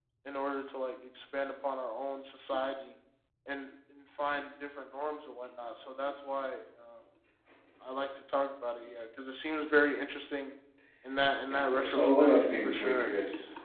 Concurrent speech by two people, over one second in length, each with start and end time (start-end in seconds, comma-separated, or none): 11.5-13.1